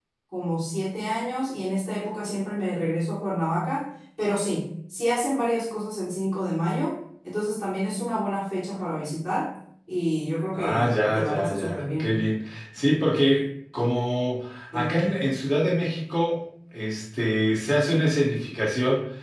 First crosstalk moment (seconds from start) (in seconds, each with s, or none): 10.5 s